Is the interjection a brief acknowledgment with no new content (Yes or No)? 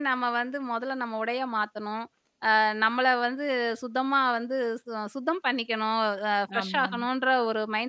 Yes